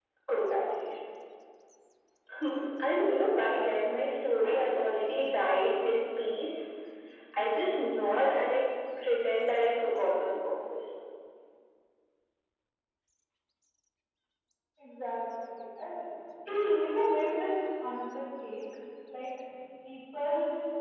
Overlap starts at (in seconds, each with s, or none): none